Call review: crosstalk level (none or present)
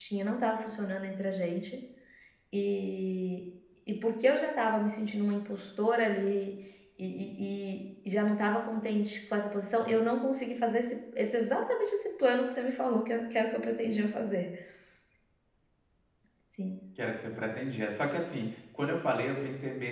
none